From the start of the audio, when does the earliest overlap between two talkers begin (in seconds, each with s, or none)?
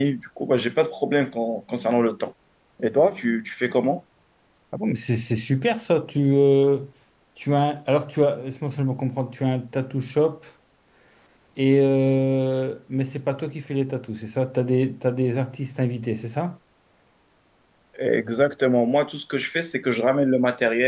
none